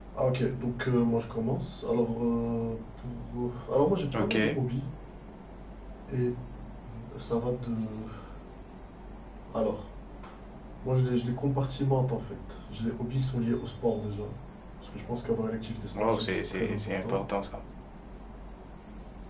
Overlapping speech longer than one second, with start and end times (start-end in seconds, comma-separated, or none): 15.9-17.2